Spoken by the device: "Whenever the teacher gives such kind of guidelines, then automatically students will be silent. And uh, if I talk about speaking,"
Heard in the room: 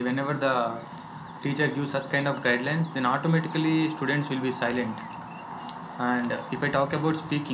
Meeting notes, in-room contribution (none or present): none